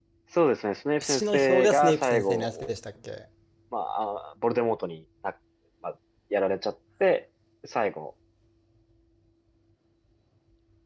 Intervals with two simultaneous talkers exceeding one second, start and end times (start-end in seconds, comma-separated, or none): 1.0-2.5